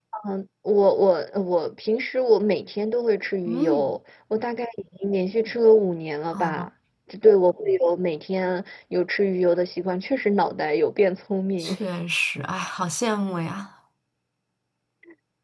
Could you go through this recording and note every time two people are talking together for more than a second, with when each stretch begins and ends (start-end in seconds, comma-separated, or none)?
none